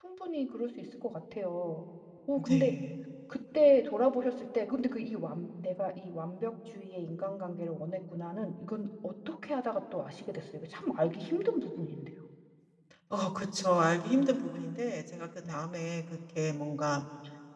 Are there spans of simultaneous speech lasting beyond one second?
No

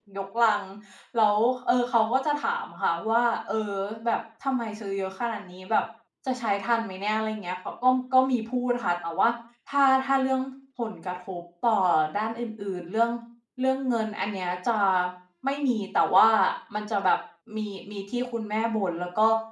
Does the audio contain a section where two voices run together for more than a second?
No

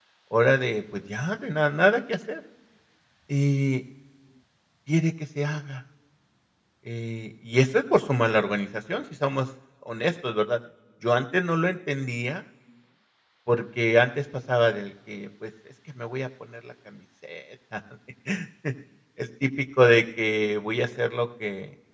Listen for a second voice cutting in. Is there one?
No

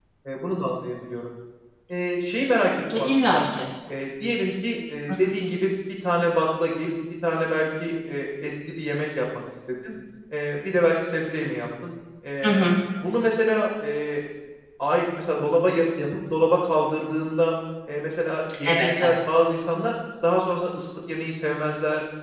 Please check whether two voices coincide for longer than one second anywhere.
No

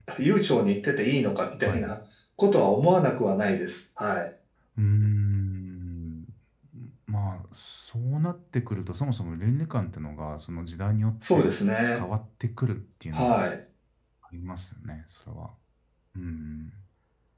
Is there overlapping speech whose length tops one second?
No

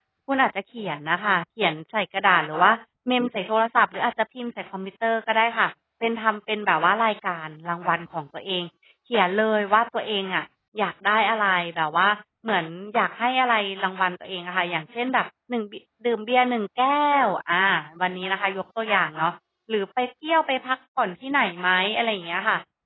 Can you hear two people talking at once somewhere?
No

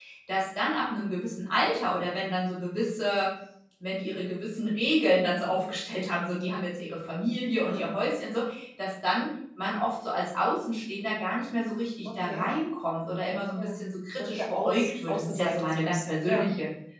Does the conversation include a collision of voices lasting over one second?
Yes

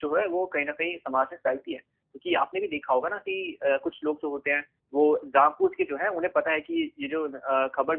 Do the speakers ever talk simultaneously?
No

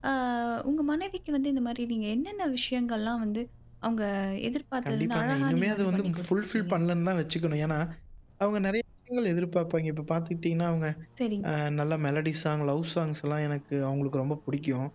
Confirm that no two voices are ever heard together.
No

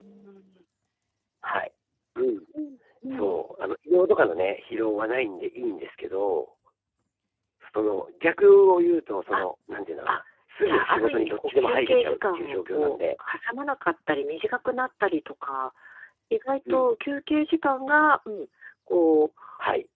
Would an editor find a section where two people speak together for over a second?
Yes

